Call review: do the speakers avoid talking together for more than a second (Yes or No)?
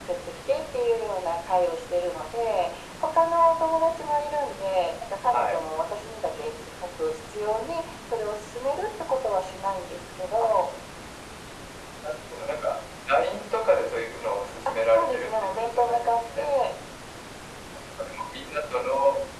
No